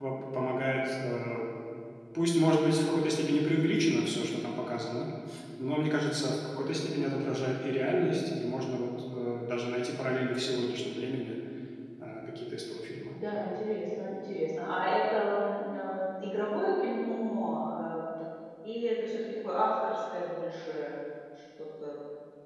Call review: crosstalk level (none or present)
none